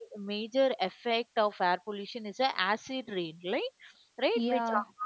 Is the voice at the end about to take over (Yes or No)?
No